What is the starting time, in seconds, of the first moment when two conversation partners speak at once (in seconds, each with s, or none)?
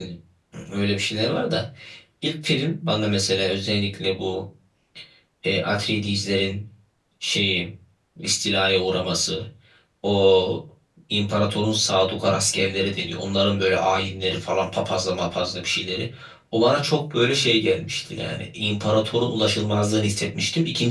none